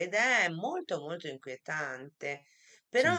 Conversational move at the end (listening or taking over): listening